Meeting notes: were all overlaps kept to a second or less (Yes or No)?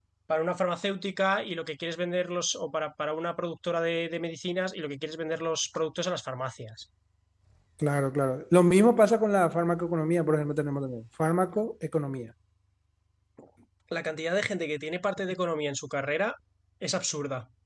Yes